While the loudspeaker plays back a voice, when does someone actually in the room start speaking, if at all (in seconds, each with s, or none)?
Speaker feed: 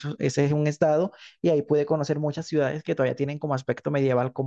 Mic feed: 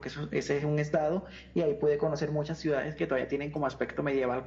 none